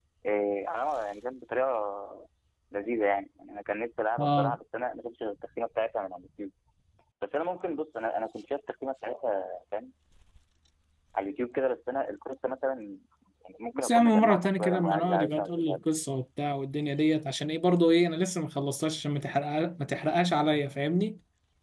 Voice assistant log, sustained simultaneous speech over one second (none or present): present